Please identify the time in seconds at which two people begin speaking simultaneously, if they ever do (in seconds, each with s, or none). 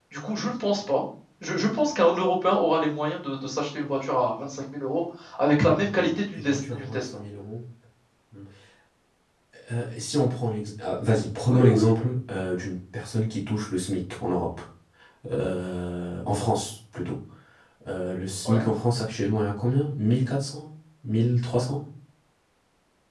5.8 s